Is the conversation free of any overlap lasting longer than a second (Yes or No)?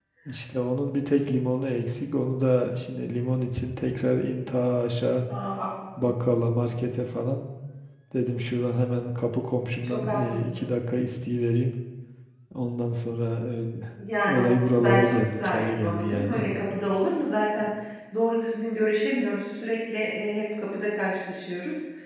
No